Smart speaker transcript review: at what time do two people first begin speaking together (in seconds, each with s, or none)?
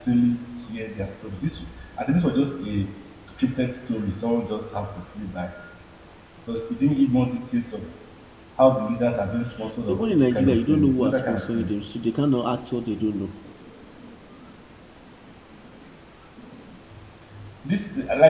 9.9 s